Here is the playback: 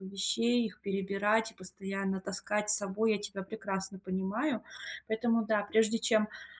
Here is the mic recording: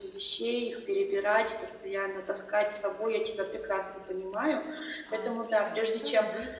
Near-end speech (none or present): present